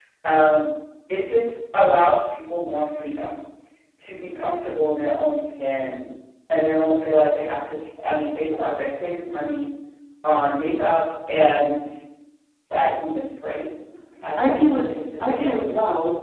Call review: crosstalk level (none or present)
present